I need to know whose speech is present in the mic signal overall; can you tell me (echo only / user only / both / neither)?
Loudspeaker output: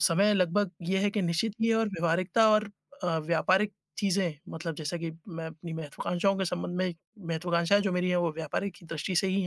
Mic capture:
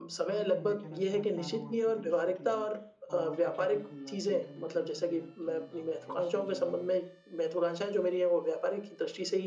both